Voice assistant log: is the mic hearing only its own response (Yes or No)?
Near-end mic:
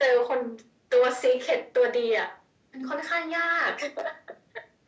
Yes